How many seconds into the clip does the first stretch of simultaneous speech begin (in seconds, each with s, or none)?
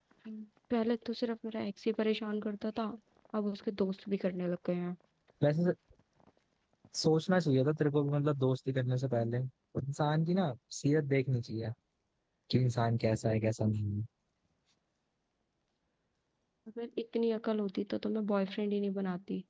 none